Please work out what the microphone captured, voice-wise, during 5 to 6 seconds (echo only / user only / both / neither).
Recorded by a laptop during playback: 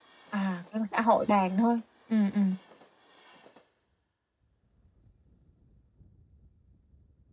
neither